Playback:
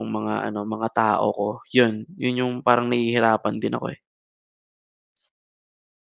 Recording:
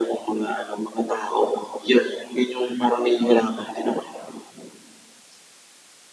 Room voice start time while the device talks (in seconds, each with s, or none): none